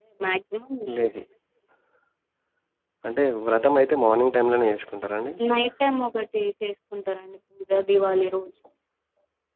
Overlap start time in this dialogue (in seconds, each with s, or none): none